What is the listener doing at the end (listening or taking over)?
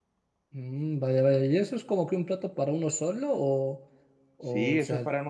taking over